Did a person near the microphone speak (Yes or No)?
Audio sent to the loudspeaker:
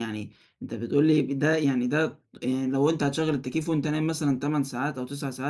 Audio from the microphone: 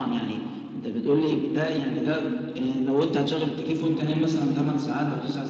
No